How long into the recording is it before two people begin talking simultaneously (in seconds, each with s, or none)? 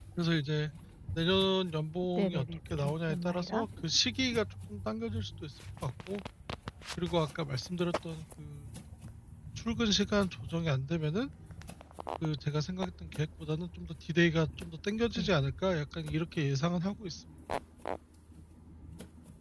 2.2 s